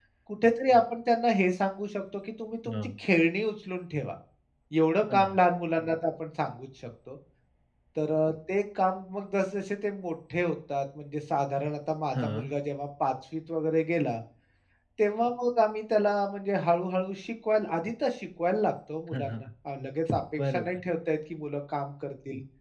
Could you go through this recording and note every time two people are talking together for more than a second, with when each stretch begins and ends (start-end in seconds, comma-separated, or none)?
none